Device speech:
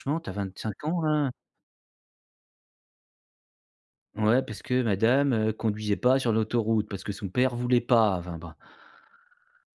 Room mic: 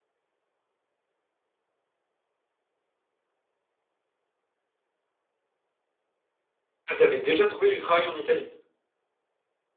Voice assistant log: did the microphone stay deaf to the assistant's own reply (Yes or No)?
Yes